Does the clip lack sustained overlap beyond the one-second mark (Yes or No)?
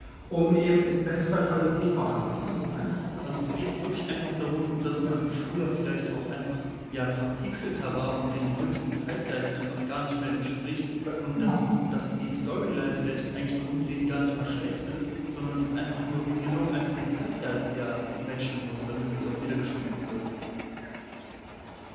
No